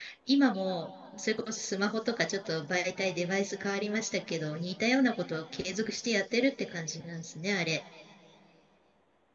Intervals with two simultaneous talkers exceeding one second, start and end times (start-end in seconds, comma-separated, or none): none